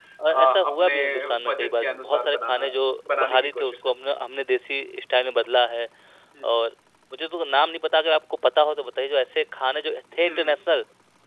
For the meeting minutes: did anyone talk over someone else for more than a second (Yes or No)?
Yes